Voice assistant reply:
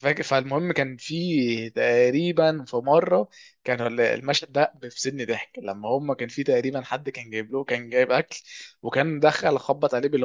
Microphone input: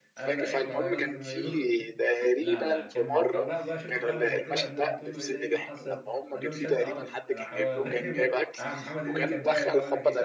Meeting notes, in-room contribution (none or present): present